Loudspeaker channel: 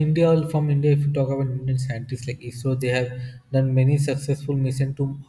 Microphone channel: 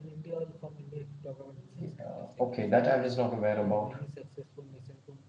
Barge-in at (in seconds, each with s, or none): 1.8 s